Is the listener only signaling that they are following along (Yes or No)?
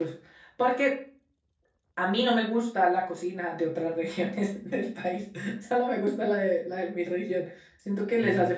Yes